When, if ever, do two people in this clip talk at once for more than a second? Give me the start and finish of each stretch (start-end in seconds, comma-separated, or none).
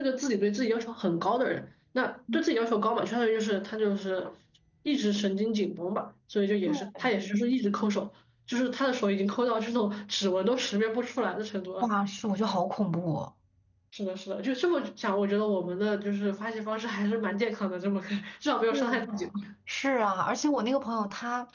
none